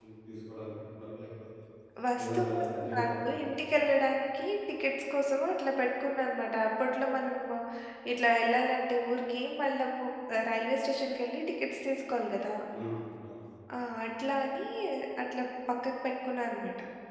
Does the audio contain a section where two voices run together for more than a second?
Yes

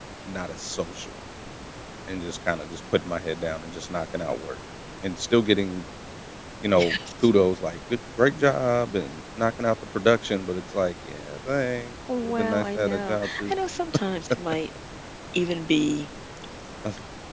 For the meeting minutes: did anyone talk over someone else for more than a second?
Yes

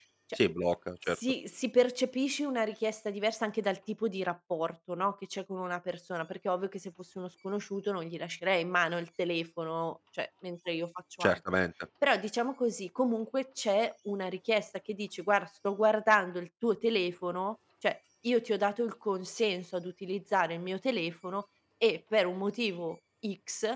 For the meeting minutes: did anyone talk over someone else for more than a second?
No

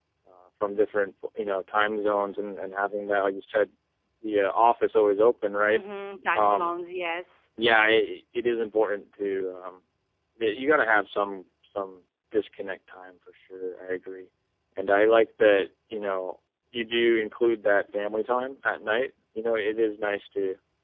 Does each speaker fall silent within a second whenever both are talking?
Yes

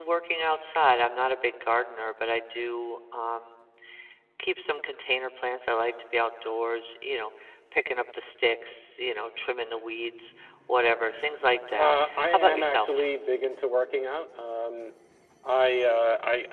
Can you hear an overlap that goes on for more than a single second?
Yes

